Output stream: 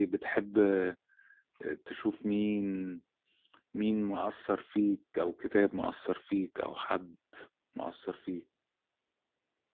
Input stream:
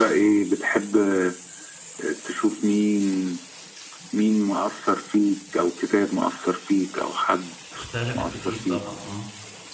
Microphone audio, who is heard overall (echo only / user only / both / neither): both